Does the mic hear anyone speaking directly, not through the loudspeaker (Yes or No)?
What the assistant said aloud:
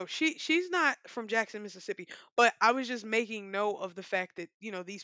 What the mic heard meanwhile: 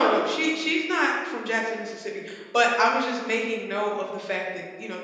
No